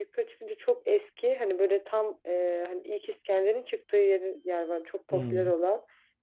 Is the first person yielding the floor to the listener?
No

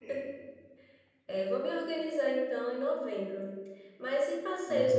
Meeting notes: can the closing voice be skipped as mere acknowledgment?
Yes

